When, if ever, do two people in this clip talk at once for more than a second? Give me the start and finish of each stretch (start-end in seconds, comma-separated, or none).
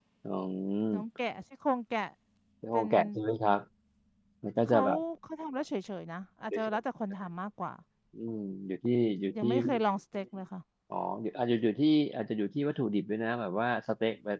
none